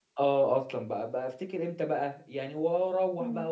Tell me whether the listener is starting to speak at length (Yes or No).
No